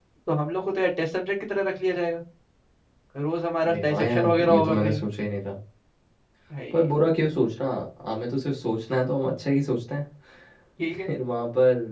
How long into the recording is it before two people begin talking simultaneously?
3.6 s

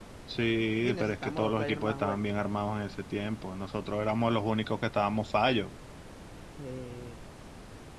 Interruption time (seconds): 0.8 s

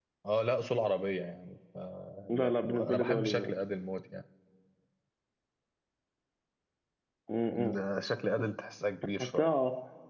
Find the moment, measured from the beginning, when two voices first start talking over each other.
2.3 s

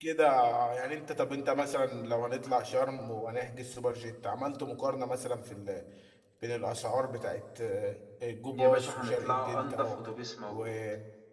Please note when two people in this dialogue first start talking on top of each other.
8.5 s

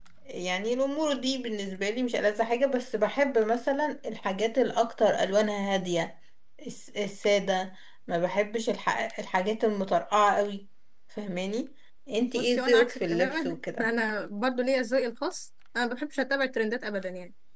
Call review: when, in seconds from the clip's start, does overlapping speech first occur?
12.2 s

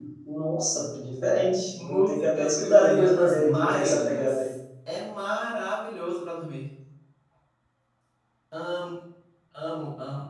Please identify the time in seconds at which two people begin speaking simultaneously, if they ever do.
1.8 s

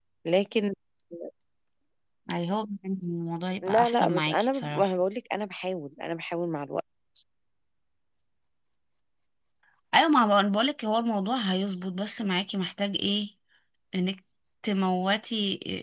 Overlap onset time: 3.6 s

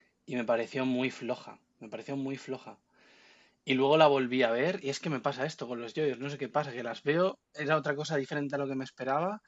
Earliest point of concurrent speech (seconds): none

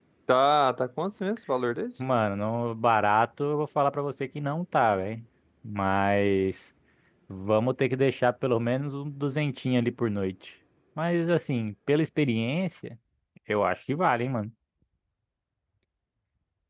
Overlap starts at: none

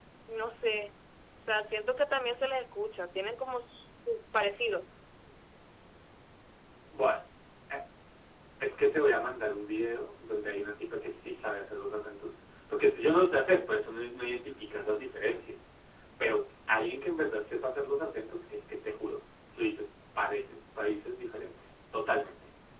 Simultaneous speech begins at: none

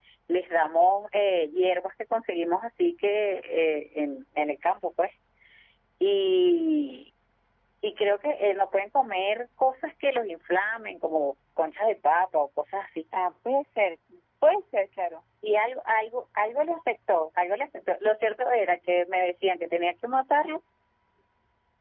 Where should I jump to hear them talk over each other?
none

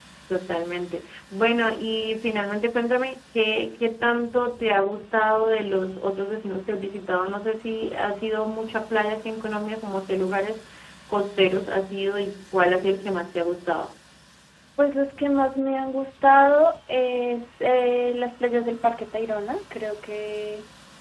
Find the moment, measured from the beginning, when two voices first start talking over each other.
none

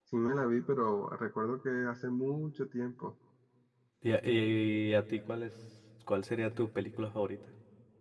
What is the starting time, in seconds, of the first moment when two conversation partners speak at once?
none

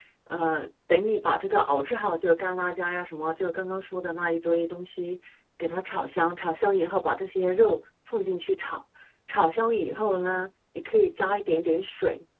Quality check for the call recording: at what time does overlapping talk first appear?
none

